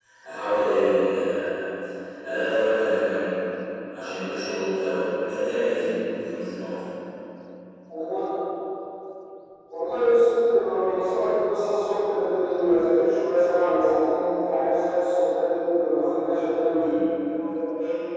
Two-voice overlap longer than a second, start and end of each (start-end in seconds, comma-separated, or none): none